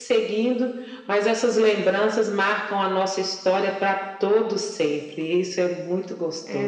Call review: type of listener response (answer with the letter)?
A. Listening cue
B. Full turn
B